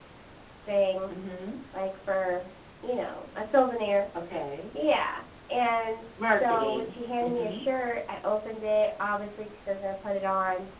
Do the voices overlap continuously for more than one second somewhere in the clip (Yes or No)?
Yes